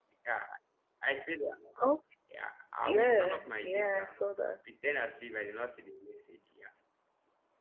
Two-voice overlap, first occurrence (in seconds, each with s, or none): 2.8 s